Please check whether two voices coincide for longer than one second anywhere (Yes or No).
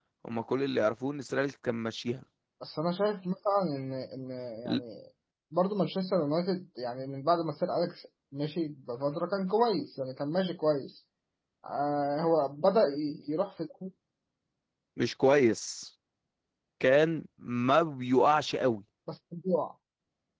No